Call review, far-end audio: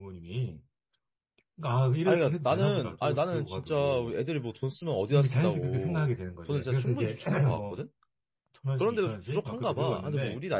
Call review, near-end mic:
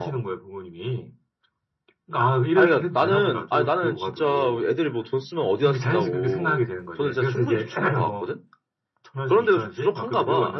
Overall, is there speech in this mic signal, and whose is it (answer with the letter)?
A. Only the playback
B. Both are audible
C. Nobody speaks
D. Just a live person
A